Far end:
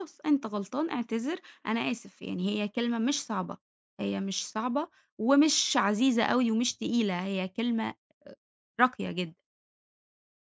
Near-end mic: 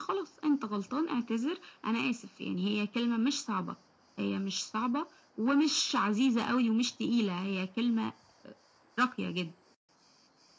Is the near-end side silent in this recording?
Yes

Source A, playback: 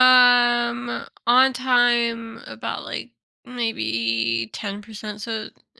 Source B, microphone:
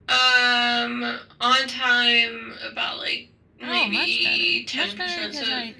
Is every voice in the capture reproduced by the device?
No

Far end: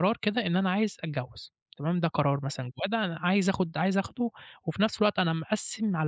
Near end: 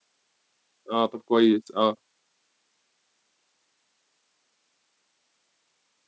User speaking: Yes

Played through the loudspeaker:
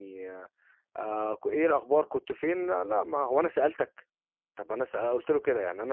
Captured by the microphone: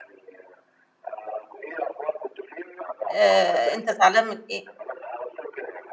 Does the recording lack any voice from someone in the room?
No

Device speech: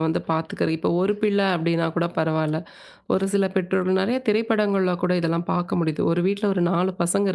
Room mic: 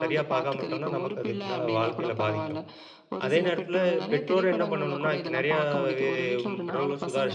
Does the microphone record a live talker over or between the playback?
Yes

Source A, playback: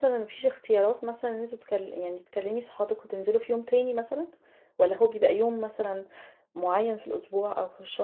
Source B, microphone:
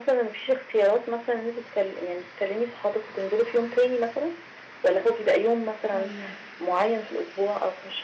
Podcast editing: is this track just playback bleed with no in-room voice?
No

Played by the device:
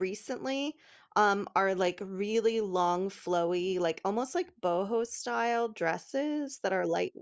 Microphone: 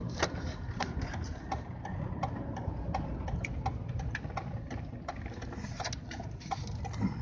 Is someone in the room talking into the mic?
No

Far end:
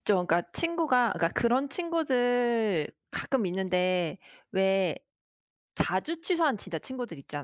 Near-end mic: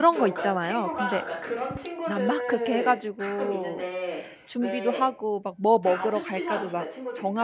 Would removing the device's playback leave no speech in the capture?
No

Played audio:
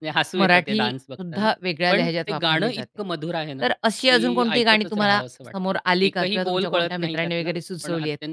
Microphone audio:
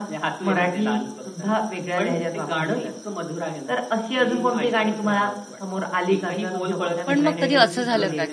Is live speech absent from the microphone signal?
No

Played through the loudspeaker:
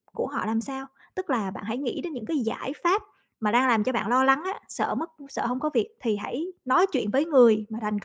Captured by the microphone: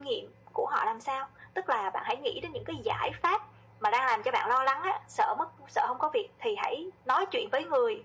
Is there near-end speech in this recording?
No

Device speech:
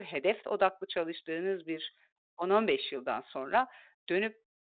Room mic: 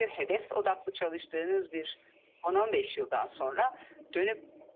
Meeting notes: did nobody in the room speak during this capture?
Yes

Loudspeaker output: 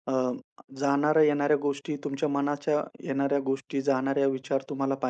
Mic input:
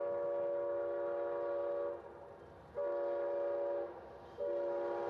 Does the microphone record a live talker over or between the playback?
No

